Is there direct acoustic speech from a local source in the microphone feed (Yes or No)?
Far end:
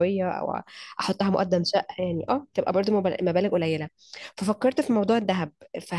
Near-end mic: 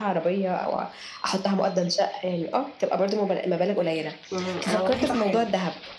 Yes